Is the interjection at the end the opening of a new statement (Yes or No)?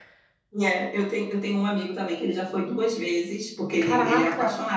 No